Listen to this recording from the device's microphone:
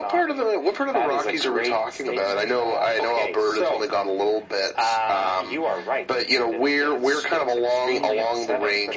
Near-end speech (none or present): none